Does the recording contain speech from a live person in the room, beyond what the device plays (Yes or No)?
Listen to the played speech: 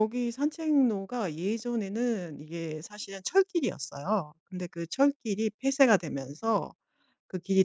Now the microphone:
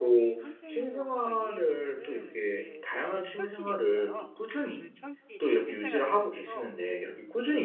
Yes